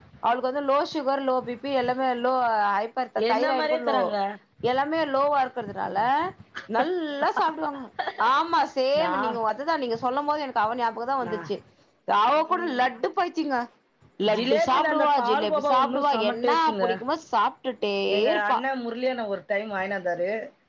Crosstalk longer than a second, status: present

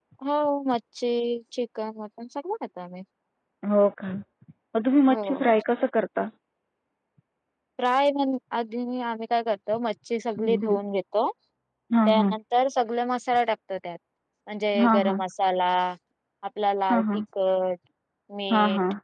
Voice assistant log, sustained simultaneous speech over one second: none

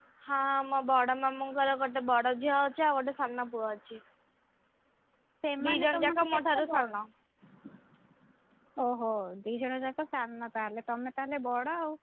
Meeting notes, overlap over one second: present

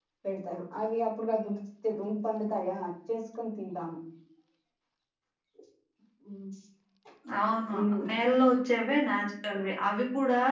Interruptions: none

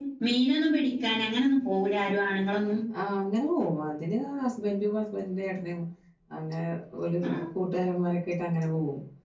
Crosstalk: none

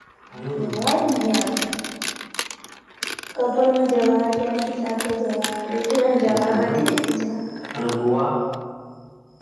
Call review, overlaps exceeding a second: none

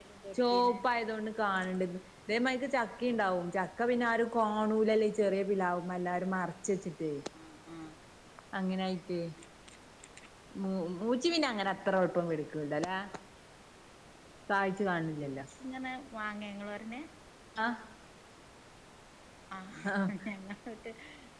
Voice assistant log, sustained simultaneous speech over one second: none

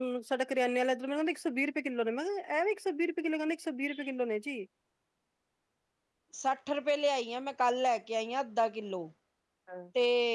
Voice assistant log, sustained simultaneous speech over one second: none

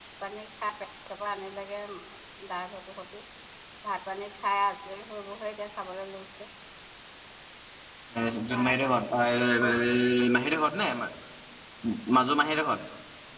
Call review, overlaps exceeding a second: none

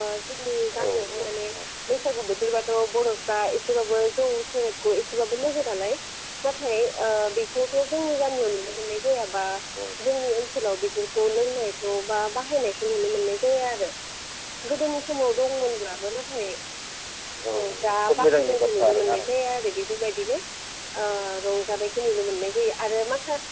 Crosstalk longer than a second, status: present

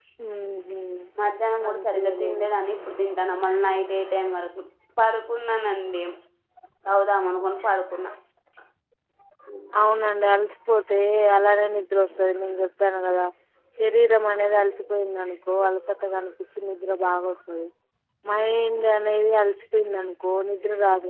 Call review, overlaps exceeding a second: present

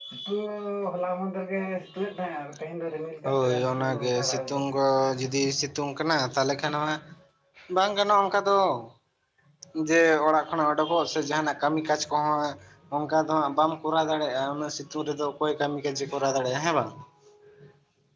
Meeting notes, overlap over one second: present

